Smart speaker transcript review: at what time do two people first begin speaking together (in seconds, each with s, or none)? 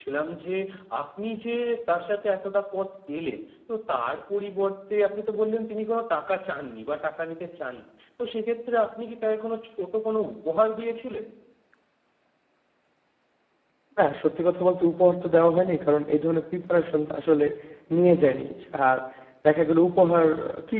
none